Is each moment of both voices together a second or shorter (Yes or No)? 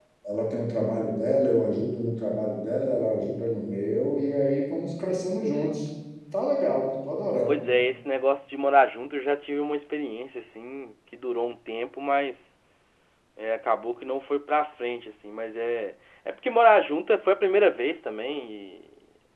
Yes